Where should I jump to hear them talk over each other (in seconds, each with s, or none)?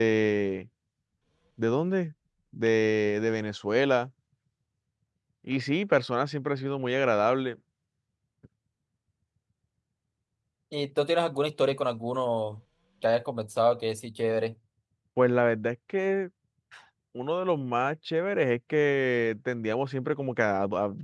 none